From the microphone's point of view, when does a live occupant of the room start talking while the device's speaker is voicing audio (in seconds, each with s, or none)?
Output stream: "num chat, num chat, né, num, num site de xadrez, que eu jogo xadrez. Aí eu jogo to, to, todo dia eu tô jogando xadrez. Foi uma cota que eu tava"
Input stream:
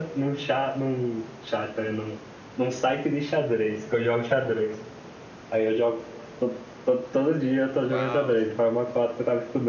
7.8 s